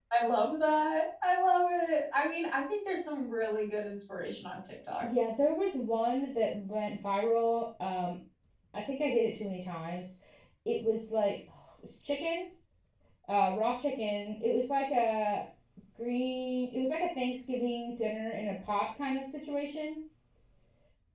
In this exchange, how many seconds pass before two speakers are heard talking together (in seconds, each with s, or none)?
none